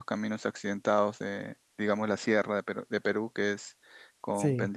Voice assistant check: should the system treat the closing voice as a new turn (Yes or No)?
No